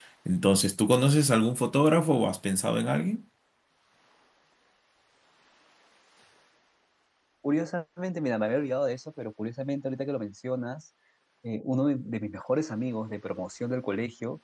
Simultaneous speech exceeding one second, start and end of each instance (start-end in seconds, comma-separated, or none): none